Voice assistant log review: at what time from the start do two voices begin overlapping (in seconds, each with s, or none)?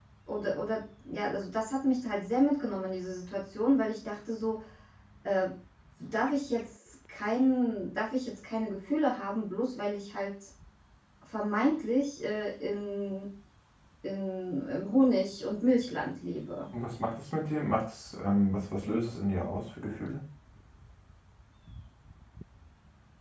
none